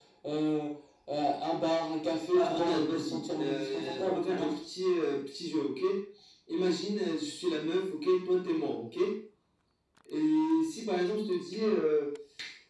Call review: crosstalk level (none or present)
present